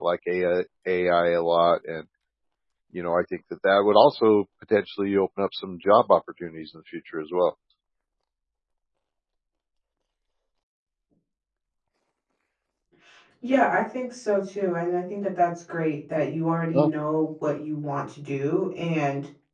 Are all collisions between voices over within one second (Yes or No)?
Yes